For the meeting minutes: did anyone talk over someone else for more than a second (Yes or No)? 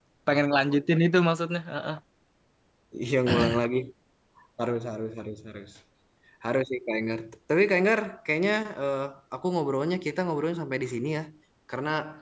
No